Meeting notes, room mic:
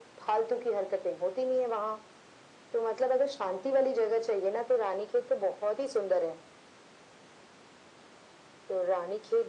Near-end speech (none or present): none